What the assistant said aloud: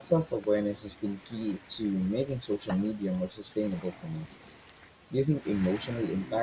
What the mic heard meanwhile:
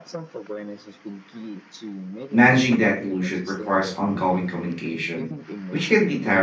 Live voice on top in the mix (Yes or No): Yes